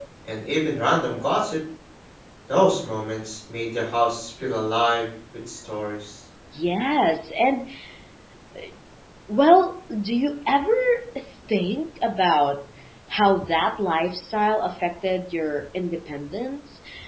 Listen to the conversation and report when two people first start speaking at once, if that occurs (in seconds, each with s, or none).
none